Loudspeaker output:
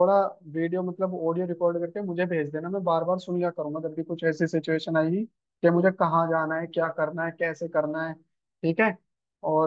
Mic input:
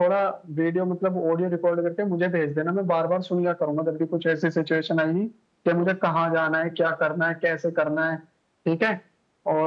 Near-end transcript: none

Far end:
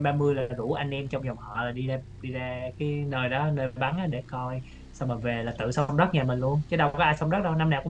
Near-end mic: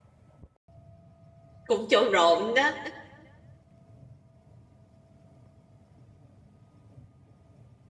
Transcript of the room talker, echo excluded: cũng trộn rộn đó

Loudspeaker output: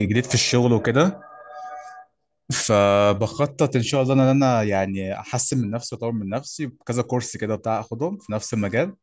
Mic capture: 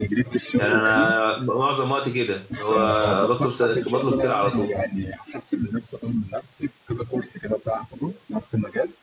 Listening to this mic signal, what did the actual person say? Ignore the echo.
يعني انا معظم وقتي كده هو بطلب س- بطلب كده على طول

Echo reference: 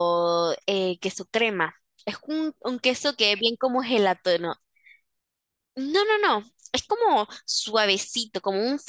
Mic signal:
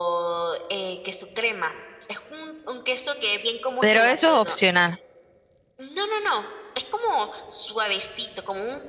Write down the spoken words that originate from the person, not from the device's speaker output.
pero eso es opcional.

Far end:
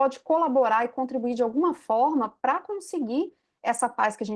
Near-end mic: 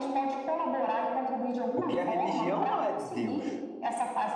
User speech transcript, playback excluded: Porque a religião não é de Deus.

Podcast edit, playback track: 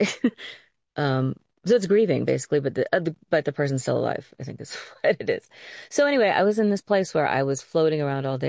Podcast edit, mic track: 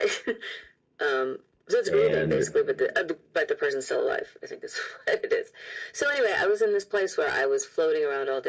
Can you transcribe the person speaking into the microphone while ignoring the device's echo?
and

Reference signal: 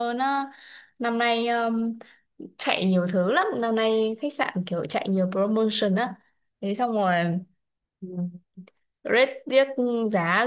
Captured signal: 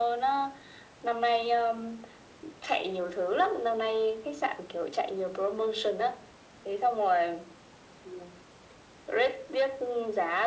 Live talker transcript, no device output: none

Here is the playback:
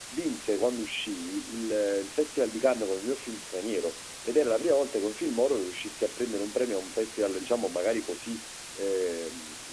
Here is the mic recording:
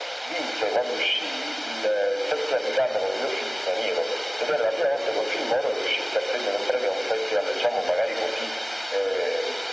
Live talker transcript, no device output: none

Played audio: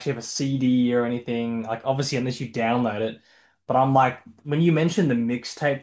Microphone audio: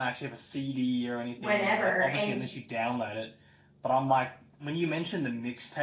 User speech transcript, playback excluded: whenever, and

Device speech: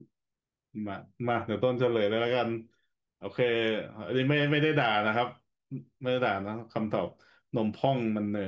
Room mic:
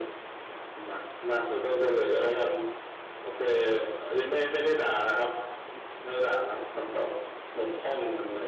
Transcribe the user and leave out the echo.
none

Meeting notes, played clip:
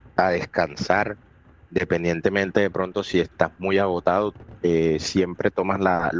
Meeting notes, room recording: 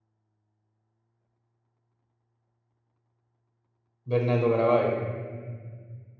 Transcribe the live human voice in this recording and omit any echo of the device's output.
Bernardo Caraballo.

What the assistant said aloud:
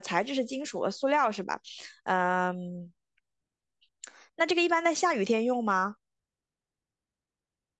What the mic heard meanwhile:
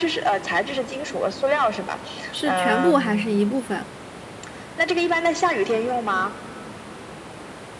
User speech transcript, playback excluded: 是全部还是一部分？

